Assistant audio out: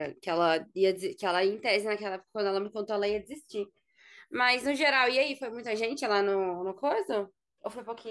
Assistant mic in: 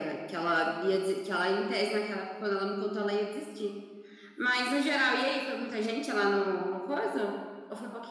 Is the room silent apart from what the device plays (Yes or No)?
Yes